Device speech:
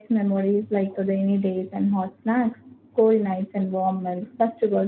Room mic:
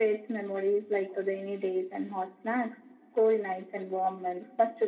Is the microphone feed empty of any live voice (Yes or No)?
Yes